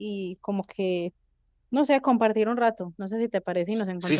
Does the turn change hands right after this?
Yes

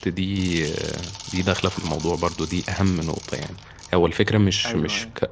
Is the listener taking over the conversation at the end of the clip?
No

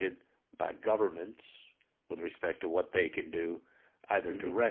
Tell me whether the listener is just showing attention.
Yes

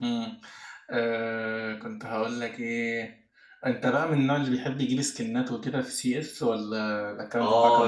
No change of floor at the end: No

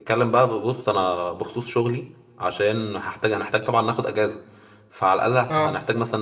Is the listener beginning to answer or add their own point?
No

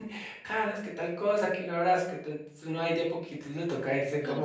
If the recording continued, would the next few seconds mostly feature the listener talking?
Yes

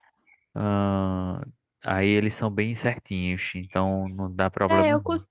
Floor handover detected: Yes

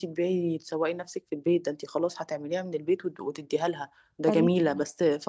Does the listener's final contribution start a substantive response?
No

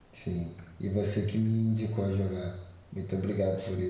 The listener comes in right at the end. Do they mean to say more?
Yes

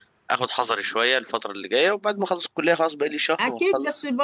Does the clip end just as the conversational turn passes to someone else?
Yes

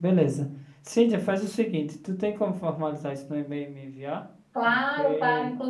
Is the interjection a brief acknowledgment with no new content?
No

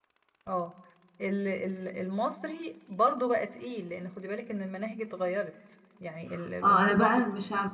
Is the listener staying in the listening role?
No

